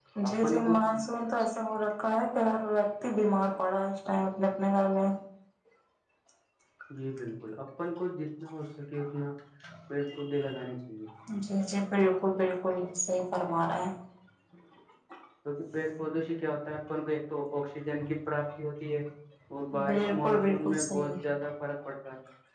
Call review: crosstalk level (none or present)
present